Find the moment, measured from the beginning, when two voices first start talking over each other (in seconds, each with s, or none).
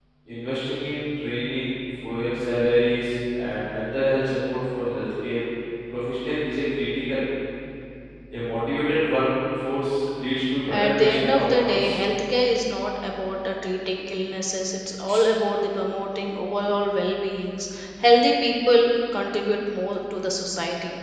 10.7 s